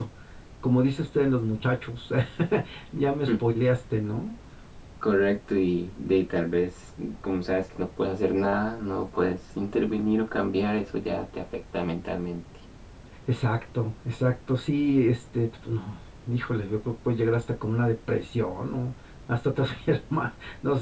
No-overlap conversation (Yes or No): Yes